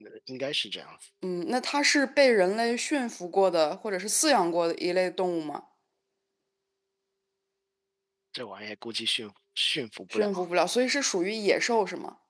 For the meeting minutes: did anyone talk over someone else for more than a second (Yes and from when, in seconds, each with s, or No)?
No